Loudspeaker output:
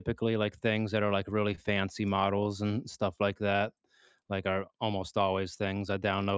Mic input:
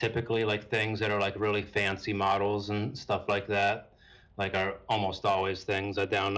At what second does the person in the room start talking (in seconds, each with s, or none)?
none